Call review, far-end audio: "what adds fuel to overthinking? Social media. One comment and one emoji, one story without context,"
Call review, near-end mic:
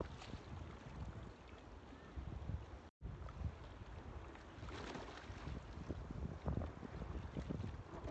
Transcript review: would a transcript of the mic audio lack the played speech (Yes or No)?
Yes